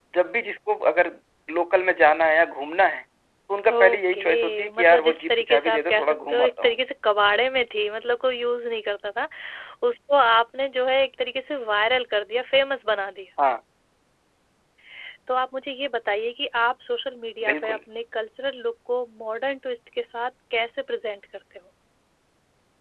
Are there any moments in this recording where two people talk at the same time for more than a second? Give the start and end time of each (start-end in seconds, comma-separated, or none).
3.7-6.9